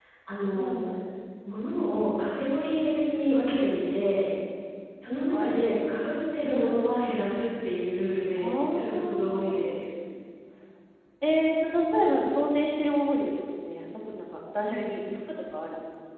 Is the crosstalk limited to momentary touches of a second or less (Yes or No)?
No